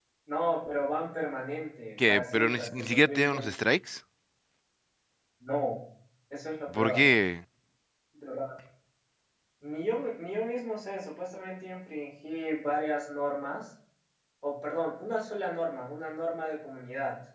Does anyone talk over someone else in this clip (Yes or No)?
Yes